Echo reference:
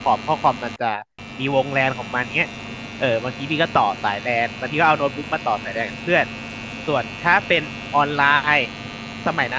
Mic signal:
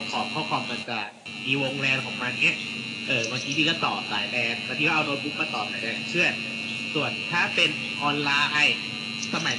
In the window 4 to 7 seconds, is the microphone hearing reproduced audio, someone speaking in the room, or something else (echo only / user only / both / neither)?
echo only